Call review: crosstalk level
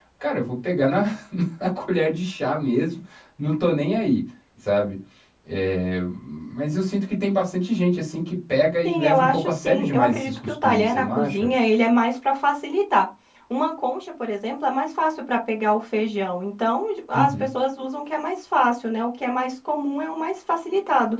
present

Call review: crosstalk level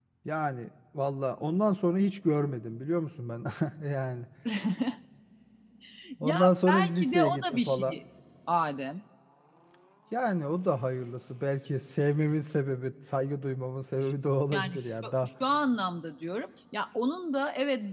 present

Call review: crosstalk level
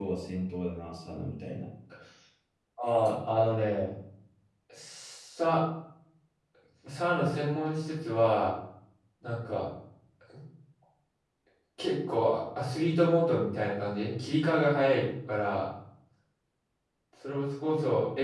none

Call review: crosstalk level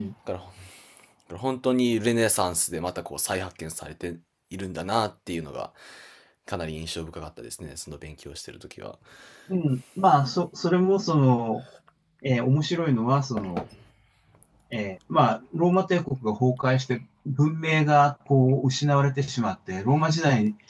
none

